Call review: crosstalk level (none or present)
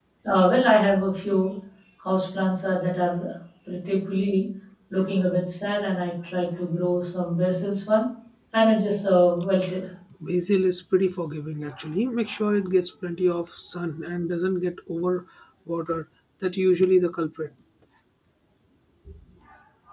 none